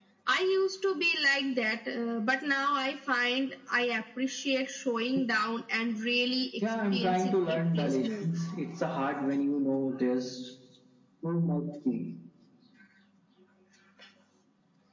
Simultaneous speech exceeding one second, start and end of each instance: 6.9-8.2

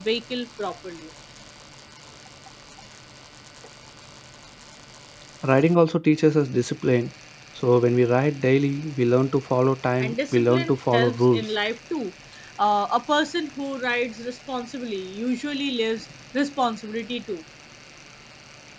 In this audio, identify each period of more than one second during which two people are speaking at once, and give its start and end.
10.0-11.5

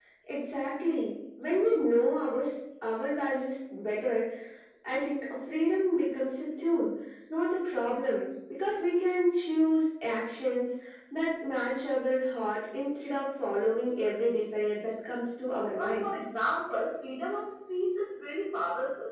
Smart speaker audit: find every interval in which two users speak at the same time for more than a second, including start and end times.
none

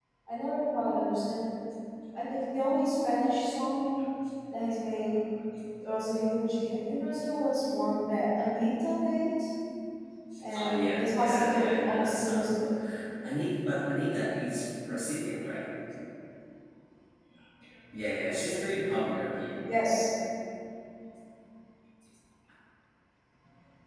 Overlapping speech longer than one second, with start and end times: 10.6-12.5

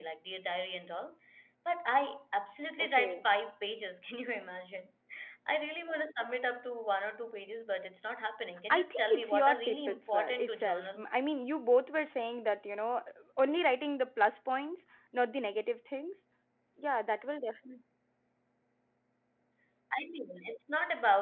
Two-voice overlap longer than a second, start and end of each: 8.7-11.1

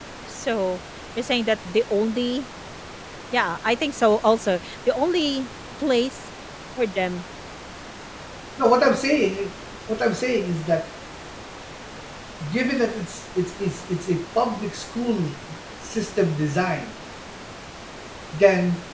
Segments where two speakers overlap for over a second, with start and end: none

